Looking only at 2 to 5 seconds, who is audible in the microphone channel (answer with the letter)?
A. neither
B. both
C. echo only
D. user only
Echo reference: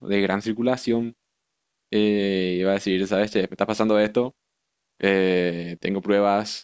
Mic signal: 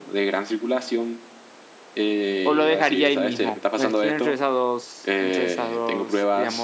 B